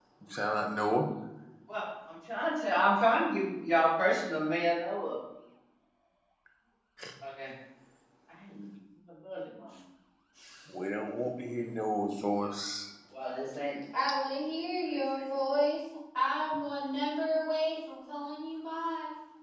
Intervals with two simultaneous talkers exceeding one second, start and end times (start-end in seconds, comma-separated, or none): none